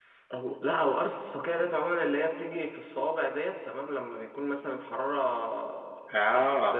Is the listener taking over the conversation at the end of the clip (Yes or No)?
No